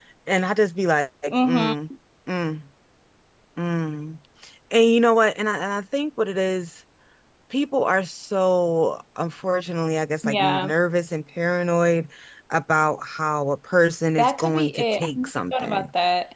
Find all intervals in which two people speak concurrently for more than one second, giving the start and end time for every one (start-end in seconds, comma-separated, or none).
14.2-15.9